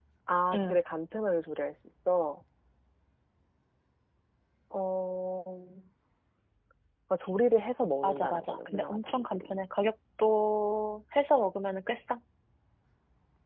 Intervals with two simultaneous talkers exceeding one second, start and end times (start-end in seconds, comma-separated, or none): 8.0-9.6